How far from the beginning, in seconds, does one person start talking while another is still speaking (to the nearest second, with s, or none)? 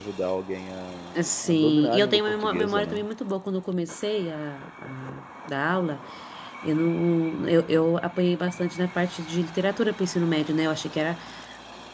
1 s